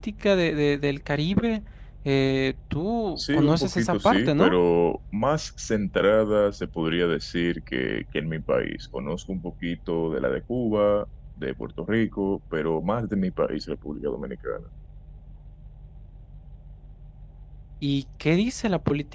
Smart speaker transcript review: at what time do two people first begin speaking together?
3 s

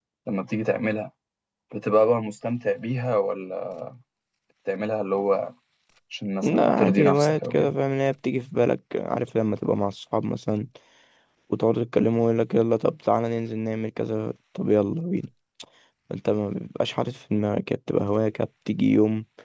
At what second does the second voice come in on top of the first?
6 s

